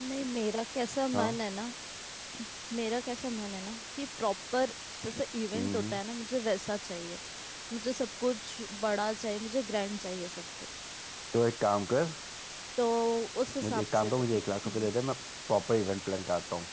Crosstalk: present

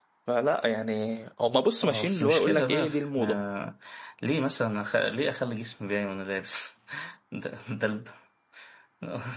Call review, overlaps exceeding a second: present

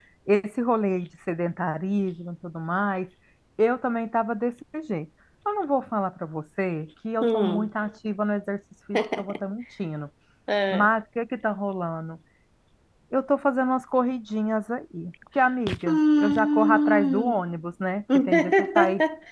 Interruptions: present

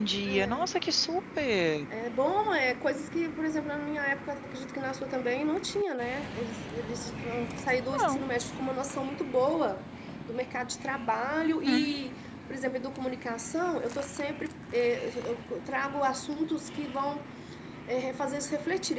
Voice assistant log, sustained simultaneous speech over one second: none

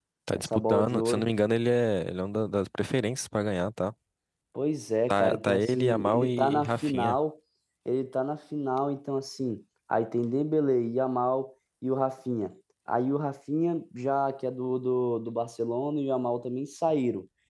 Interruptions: present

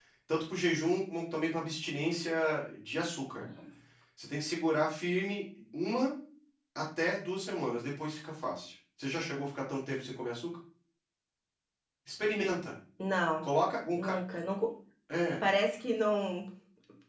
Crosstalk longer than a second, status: none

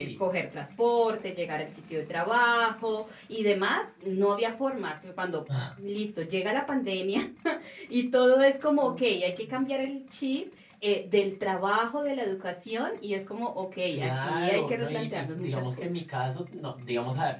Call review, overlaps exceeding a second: present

